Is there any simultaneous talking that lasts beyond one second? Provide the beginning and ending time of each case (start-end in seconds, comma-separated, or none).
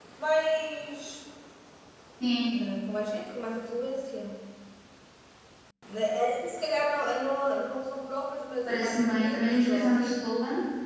8.7-10.2